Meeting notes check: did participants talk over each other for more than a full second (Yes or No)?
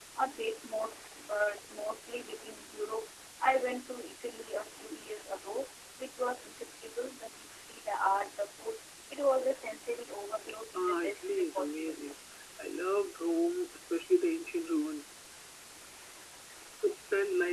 Yes